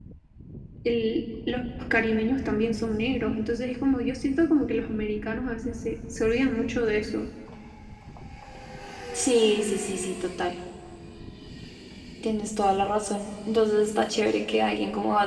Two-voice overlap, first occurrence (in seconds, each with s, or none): none